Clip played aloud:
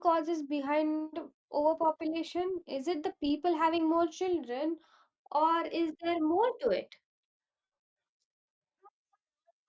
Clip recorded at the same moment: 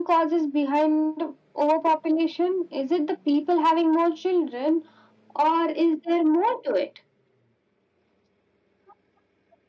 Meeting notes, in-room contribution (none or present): none